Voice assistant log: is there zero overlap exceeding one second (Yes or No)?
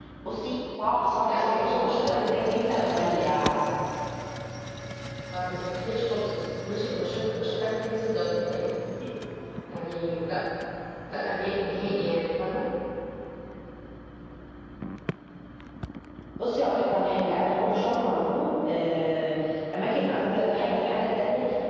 No